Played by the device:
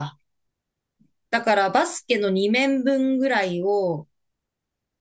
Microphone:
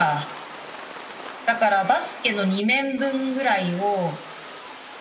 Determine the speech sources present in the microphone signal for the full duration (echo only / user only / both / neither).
echo only